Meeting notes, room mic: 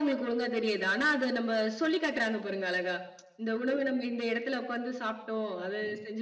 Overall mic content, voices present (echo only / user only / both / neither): echo only